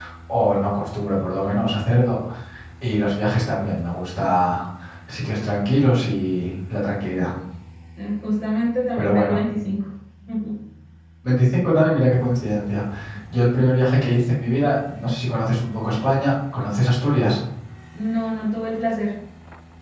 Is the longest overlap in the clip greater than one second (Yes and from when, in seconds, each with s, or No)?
No